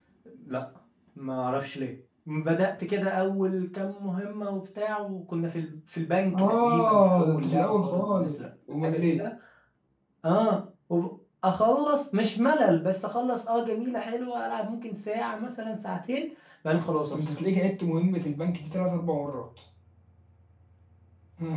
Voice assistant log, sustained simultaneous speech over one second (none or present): present